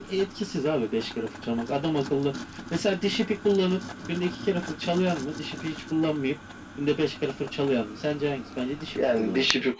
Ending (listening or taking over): taking over